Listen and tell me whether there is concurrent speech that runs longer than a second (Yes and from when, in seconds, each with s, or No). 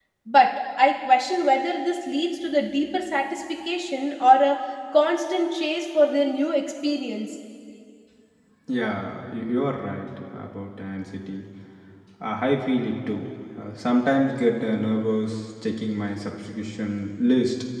No